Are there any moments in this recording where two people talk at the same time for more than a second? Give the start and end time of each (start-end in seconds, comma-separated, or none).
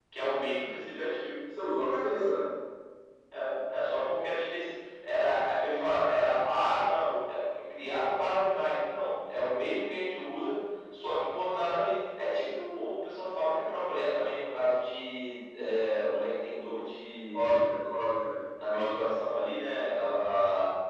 none